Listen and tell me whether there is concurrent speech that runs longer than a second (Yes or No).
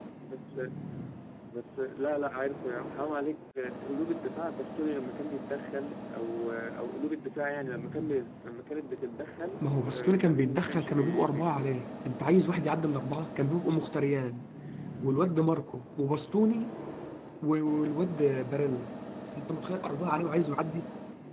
Yes